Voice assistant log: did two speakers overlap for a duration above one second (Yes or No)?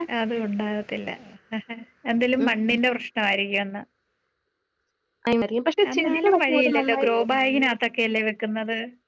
Yes